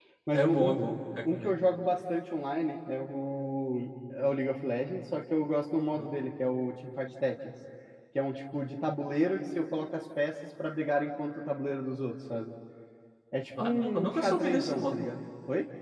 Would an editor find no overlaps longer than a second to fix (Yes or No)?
No